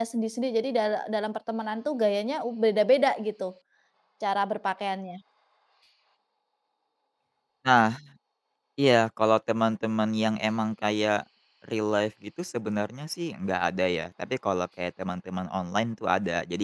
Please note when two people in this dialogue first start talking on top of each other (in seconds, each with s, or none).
none